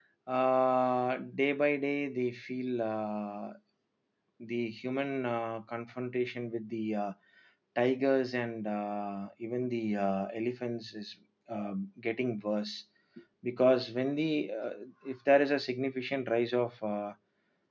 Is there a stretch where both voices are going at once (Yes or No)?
No